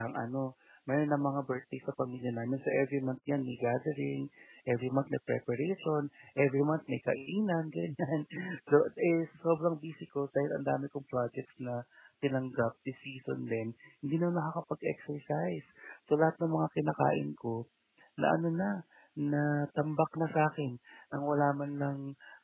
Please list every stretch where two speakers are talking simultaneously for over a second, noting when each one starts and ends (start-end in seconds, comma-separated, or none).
none